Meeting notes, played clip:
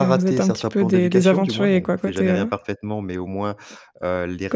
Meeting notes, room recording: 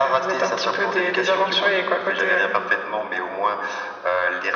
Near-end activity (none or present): none